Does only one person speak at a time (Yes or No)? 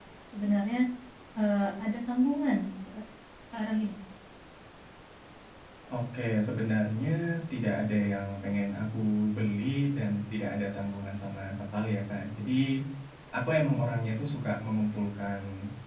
Yes